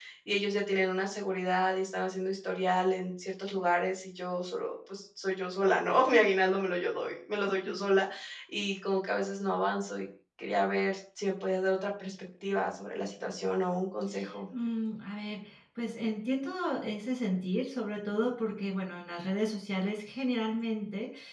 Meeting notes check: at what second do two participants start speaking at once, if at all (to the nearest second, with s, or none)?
none